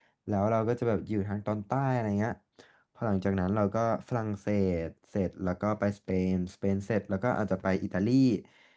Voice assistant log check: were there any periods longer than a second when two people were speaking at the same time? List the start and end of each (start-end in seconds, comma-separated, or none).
none